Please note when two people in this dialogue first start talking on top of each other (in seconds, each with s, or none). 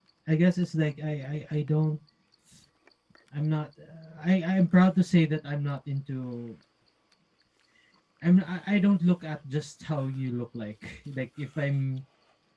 none